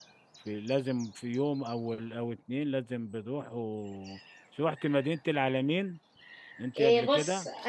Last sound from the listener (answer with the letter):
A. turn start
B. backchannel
A